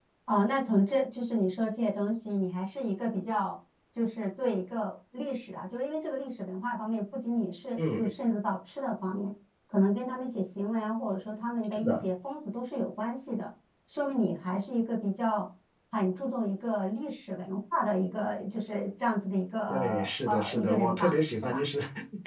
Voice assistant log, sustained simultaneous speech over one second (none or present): present